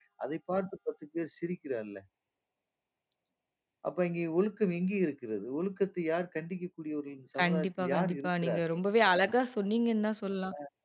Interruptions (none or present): present